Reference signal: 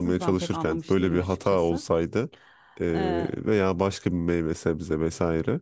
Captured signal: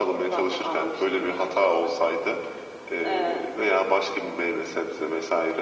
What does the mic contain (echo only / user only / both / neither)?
echo only